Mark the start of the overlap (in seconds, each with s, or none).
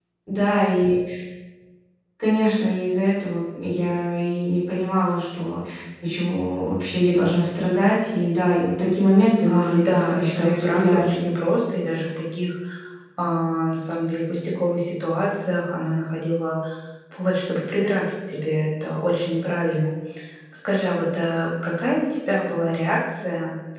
9.4 s